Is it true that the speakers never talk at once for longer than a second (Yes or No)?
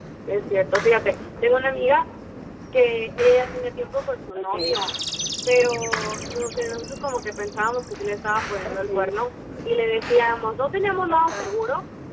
Yes